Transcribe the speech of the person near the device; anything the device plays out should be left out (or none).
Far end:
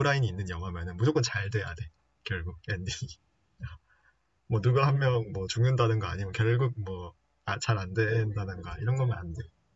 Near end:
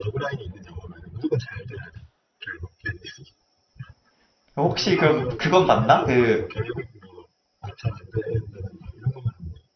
혹시 그럼 그건 봤나? 그